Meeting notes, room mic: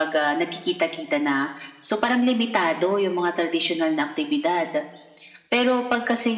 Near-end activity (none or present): none